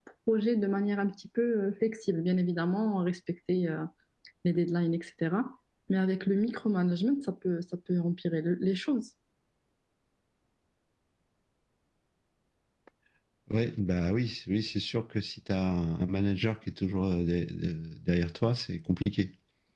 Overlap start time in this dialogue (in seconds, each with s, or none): none